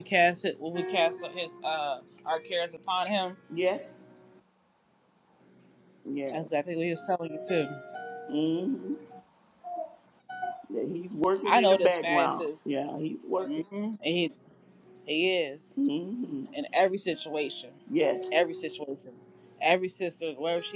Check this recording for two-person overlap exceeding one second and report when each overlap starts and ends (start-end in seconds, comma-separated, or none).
11.4-12.7